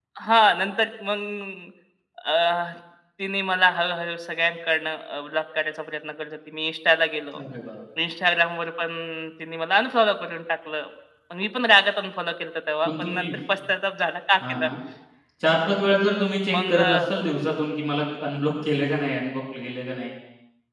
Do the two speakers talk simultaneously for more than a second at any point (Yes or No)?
No